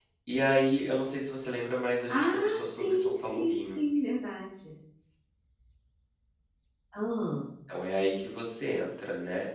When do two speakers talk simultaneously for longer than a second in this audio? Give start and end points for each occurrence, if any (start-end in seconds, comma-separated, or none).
2.1-3.8